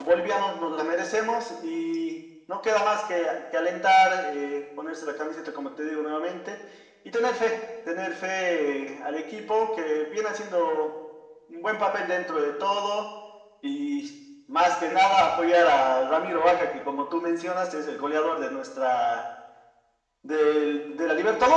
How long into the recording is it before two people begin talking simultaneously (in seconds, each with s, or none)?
none